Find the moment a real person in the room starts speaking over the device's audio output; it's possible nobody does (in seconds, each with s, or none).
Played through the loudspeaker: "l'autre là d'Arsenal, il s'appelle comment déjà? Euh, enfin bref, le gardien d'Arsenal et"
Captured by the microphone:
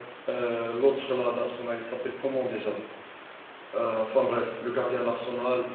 none